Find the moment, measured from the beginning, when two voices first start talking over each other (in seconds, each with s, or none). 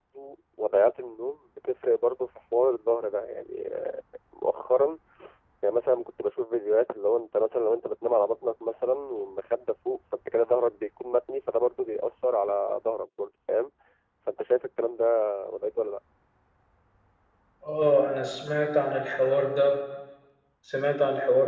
none